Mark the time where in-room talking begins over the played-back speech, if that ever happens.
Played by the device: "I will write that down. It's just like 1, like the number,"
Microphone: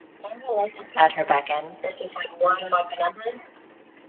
0.9 s

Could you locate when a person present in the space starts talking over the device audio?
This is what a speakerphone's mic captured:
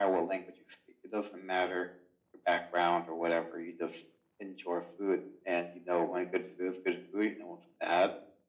none

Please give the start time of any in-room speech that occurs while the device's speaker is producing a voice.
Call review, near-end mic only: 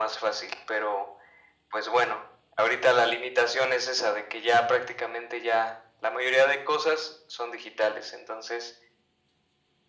none

